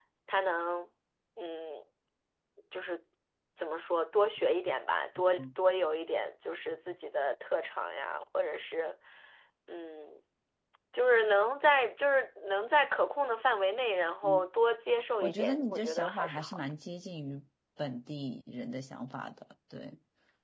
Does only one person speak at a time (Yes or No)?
No